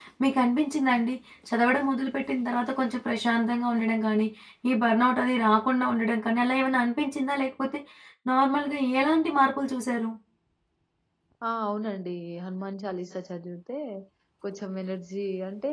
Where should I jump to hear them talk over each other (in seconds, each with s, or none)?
none